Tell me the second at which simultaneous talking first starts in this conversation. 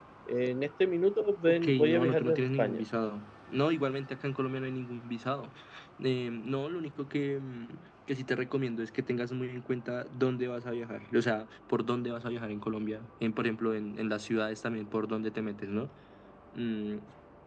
1.5 s

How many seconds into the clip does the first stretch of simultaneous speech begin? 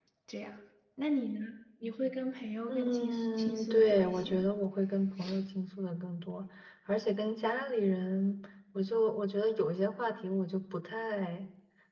2.7 s

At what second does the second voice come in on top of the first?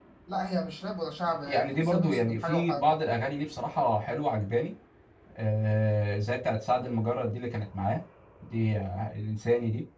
1.4 s

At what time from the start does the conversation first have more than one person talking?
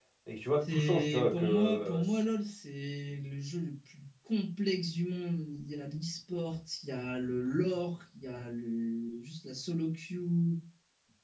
0.6 s

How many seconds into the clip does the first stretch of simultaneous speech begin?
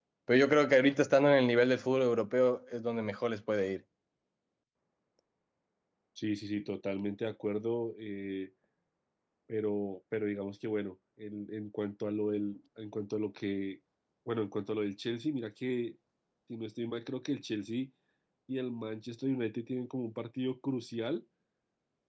none

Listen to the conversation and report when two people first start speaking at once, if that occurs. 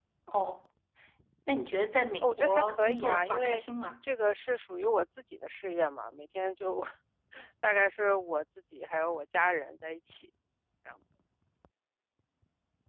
2.2 s

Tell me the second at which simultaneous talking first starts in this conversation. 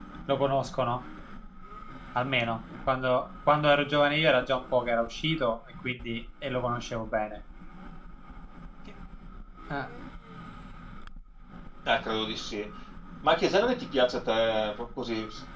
none

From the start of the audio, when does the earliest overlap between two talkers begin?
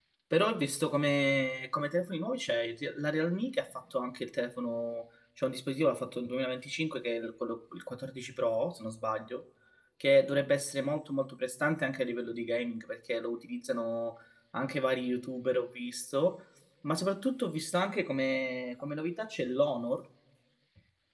none

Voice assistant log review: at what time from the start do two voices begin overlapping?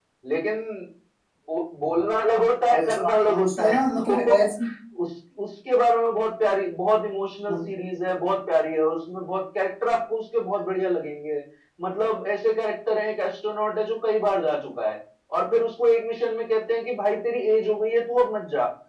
2.7 s

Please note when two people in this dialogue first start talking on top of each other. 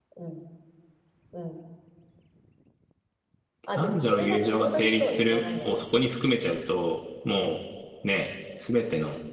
3.7 s

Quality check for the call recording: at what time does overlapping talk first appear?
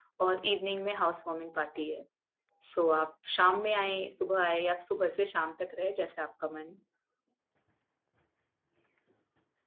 none

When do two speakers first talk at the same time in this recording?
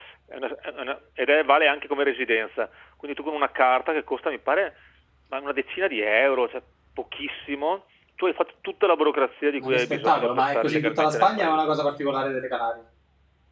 9.6 s

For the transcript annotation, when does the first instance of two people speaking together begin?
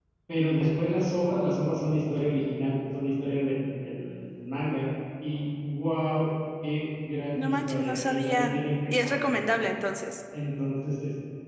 7.4 s

